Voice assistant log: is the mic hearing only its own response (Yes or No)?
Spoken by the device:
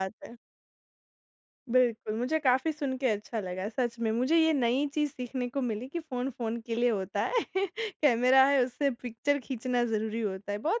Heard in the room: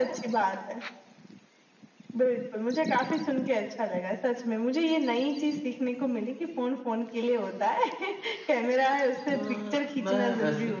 No